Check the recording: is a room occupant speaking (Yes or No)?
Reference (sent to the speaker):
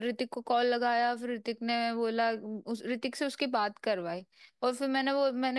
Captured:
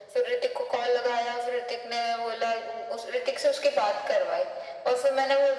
No